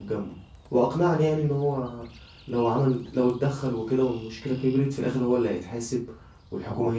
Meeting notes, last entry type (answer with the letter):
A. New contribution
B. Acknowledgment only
B